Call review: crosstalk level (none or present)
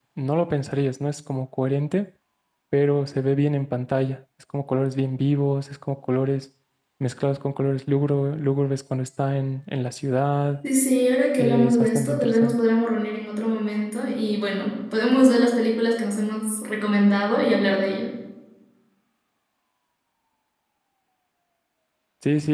present